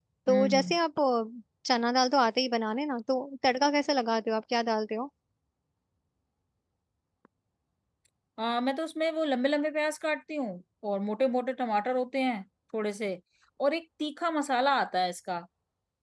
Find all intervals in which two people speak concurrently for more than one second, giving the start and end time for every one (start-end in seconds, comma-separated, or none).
none